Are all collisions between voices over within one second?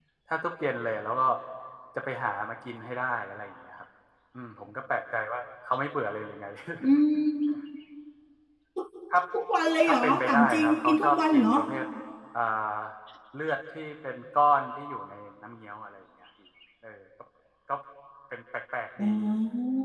No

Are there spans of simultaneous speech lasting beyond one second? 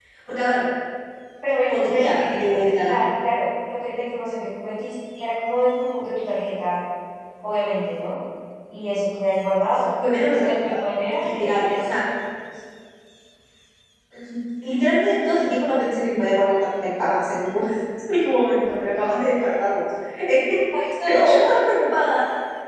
Yes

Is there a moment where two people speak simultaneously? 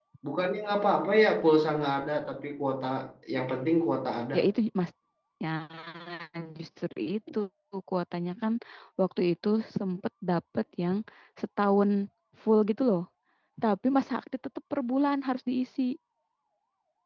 No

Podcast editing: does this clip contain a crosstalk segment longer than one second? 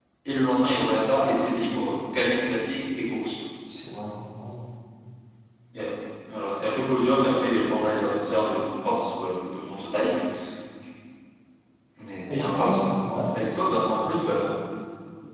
No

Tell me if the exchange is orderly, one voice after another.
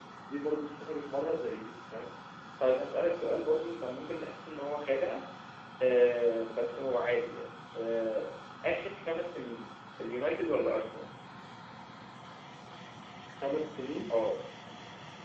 Yes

